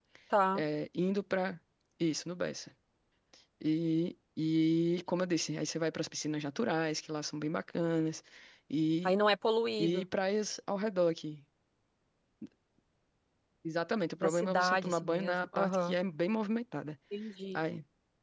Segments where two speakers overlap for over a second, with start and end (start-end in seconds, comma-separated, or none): 14.2-15.9